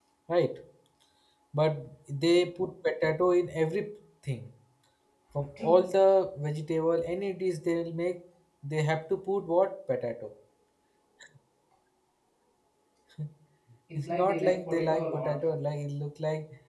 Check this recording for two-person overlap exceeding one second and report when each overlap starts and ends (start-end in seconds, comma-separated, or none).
14.0-15.3